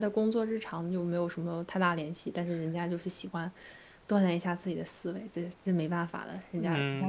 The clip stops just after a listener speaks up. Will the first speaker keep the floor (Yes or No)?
No